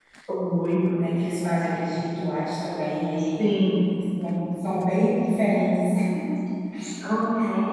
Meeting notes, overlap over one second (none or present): none